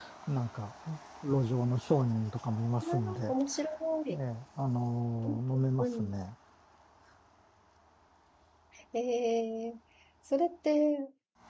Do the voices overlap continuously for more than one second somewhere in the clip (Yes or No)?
No